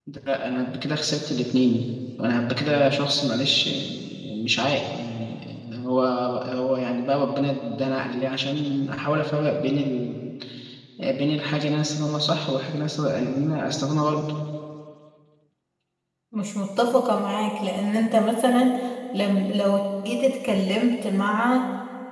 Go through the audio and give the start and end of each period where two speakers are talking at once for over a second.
none

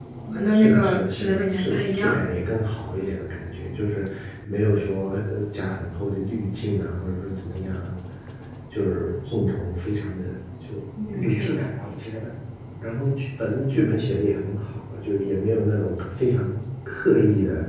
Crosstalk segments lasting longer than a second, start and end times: 0.5-2.1

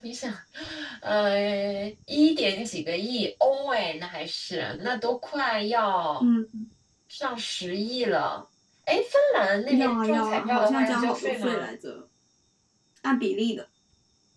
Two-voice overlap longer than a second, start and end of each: 9.8-11.7

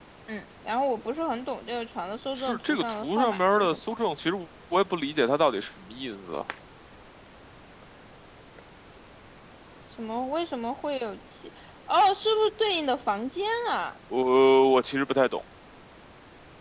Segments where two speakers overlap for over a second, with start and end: 2.4-3.8

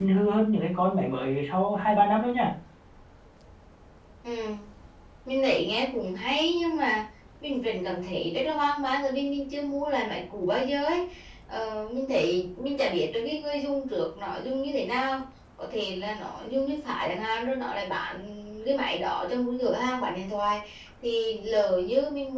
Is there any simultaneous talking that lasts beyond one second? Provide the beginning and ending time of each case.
none

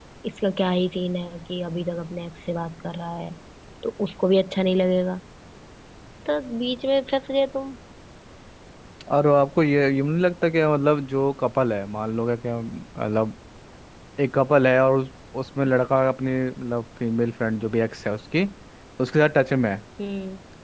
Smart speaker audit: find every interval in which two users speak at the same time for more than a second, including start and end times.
none

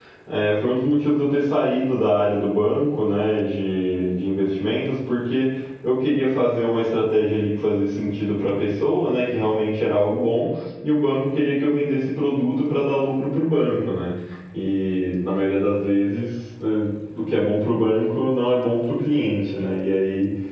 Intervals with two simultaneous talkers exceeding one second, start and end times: none

